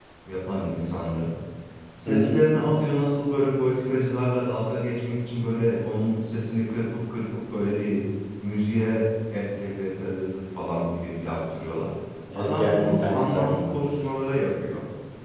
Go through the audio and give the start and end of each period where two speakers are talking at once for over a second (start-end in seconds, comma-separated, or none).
12.3-13.8